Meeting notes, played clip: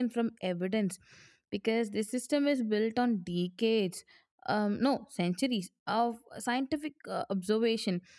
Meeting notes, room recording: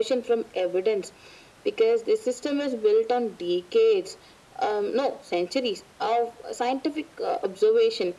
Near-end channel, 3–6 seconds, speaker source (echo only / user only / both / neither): echo only